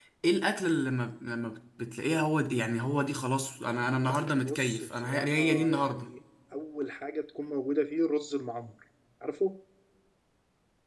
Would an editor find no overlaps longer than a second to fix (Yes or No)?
No